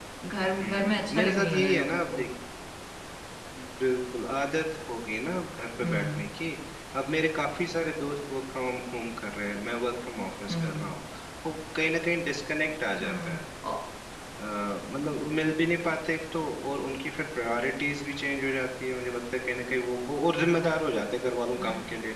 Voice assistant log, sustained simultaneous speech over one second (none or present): present